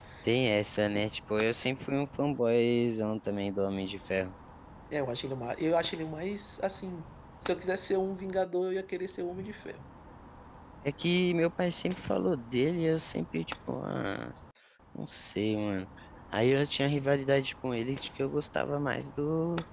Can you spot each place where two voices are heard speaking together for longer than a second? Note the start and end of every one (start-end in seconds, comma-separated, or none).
none